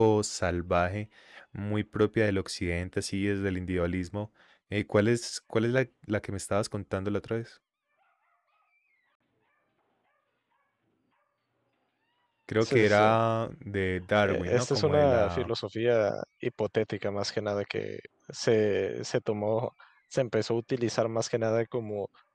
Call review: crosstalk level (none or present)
present